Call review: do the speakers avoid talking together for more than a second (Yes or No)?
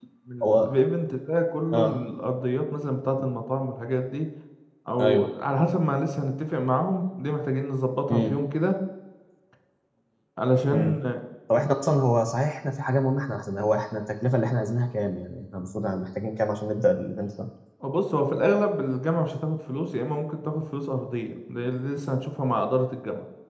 Yes